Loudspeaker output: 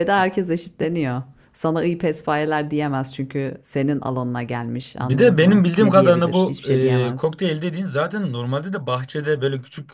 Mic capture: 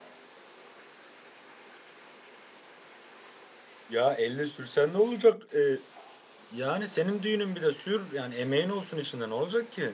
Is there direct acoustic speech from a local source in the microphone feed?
Yes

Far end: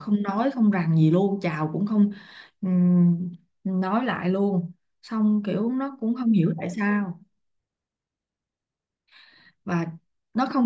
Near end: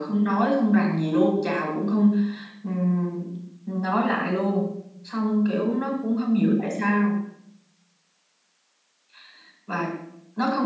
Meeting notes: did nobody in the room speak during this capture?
Yes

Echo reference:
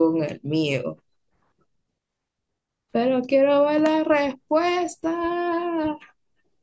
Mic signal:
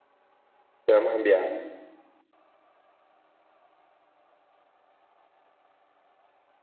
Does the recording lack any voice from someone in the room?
No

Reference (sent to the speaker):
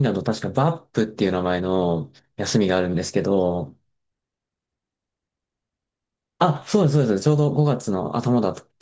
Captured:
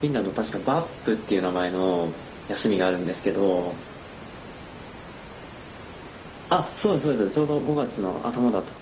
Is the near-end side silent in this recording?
Yes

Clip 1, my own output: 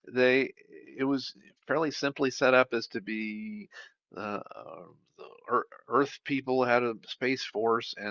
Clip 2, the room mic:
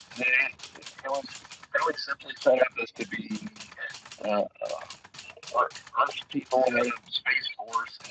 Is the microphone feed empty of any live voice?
Yes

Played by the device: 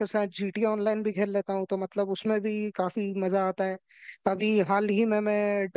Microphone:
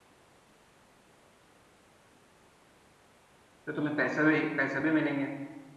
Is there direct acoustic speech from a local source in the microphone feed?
Yes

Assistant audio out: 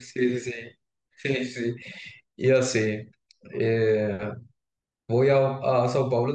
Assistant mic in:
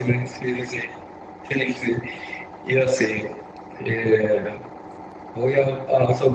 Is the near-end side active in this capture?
No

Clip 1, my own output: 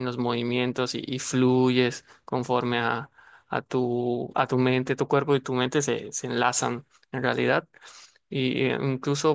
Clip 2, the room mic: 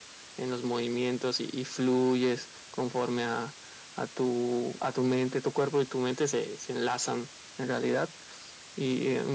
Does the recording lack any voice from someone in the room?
Yes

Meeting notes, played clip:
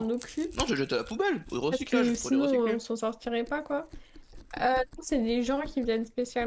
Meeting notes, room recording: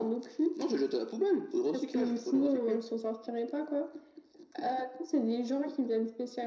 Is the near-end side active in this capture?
No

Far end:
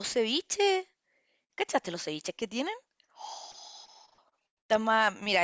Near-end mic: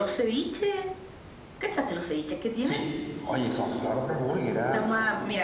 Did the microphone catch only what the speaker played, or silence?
No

